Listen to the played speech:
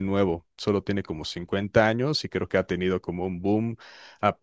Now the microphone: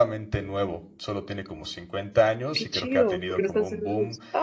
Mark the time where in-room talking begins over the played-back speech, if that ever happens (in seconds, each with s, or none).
2.5 s